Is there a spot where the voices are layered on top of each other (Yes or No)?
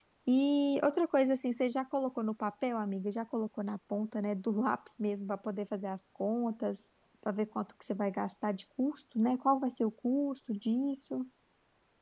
No